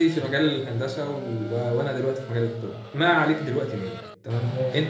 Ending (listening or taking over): listening